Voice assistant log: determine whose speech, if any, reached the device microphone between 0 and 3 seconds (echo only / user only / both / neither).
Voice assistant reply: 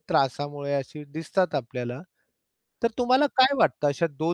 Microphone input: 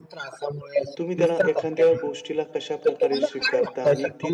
both